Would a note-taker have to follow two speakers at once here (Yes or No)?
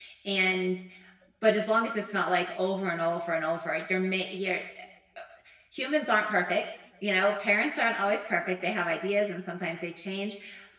No